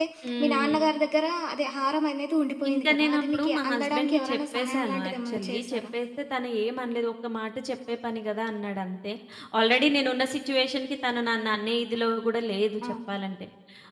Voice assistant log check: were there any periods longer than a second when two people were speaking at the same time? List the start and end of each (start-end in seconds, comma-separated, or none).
2.7-5.8